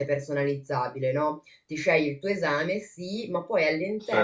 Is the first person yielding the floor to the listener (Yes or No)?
No